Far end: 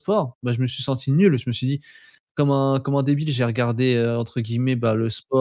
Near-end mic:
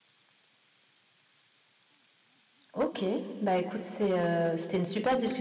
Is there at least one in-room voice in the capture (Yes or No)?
Yes